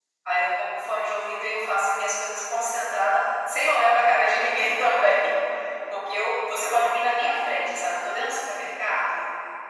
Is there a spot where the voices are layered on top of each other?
No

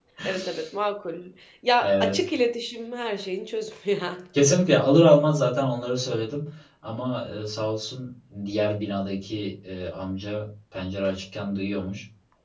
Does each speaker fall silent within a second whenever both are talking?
Yes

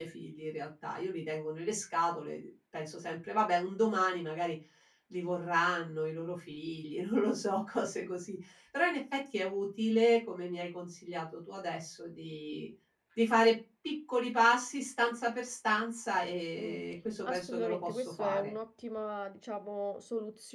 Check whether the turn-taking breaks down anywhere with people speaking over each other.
Yes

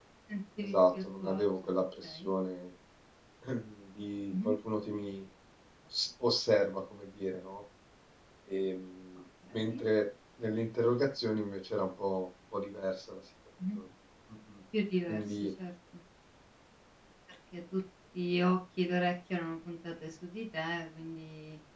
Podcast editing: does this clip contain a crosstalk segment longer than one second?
Yes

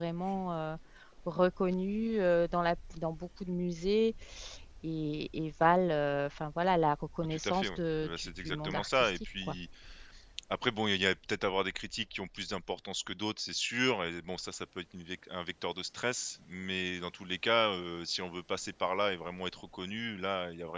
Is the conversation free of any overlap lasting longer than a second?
No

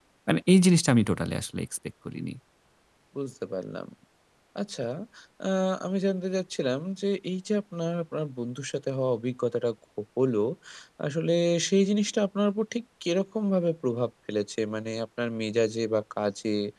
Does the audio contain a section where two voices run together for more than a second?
No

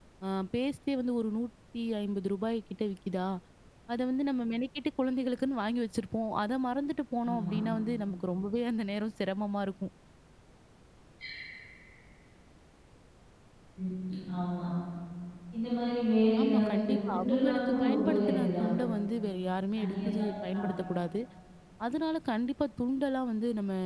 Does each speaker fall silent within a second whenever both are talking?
No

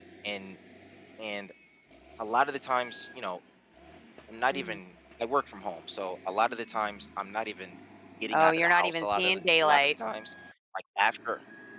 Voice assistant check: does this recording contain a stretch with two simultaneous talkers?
Yes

